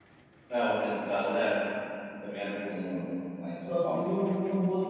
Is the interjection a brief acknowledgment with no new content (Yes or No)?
No